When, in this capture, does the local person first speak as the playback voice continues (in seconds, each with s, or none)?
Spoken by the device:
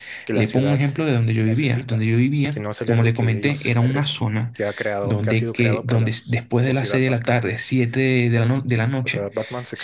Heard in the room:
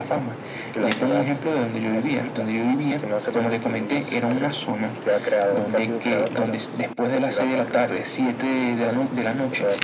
none